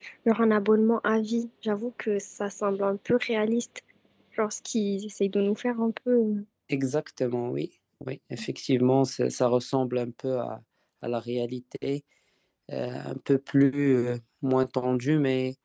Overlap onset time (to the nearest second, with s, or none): none